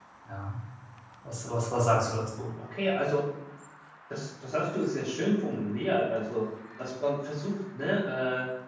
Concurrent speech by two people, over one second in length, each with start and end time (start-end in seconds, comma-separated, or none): none